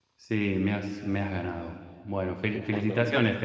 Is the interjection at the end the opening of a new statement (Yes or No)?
No